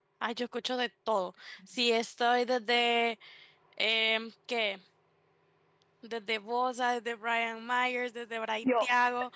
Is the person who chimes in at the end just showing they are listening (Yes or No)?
Yes